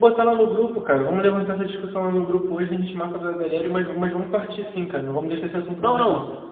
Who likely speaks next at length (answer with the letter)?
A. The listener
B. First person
A